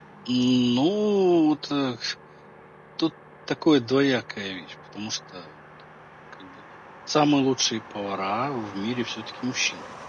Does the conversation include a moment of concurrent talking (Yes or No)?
No